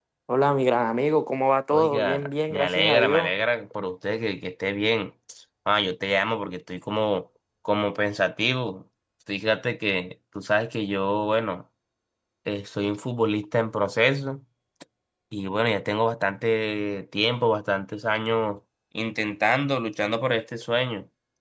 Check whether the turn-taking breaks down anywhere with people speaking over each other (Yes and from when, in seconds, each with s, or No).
Yes, from 1.7 s